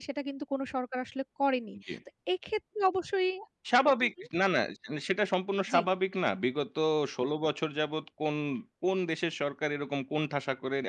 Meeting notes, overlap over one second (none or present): none